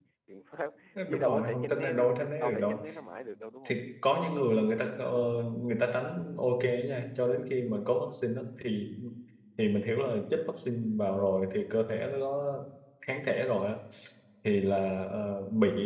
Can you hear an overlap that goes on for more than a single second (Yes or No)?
Yes